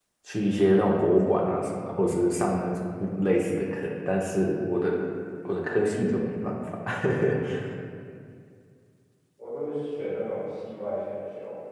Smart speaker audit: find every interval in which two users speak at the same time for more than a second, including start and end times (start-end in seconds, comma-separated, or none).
none